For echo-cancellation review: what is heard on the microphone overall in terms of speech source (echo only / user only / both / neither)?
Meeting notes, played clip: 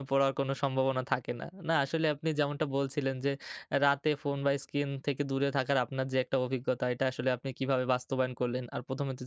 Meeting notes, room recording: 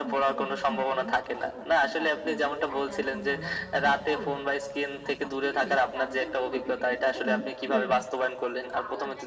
both